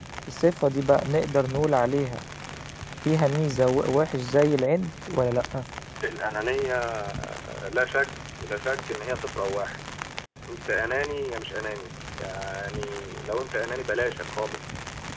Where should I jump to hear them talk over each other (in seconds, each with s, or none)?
none